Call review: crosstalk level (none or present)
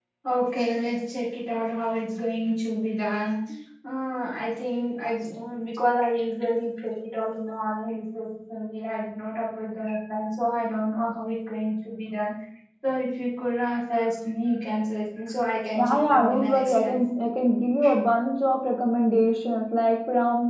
present